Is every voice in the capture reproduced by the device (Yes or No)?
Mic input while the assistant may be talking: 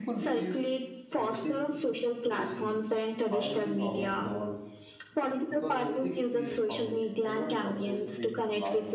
No